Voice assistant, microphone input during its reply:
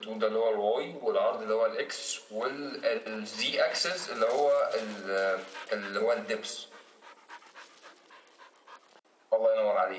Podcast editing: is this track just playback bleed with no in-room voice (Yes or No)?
Yes